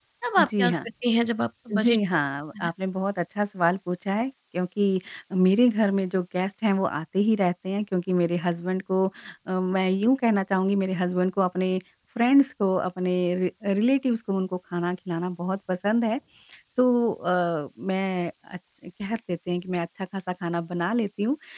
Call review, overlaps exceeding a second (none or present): none